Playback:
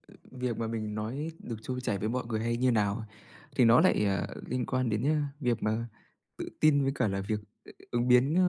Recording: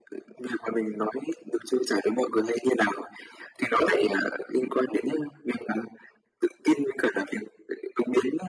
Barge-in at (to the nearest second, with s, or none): none